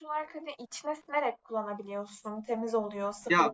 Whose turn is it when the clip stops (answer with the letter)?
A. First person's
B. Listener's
B